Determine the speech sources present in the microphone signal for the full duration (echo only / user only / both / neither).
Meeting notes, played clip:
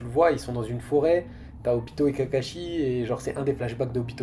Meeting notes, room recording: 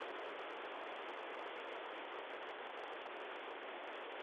neither